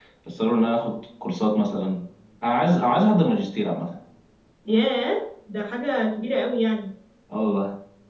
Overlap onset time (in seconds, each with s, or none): none